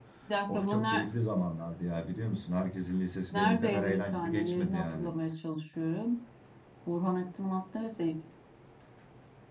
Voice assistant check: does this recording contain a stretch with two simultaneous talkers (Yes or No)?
Yes